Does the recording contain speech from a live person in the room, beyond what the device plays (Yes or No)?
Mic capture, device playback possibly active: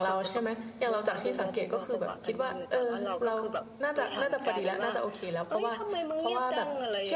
Yes